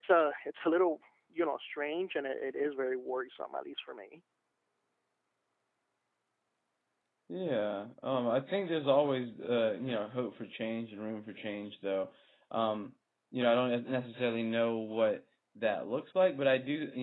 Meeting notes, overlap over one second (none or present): none